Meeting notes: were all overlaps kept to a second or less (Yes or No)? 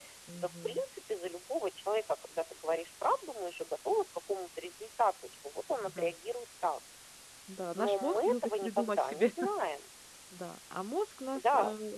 No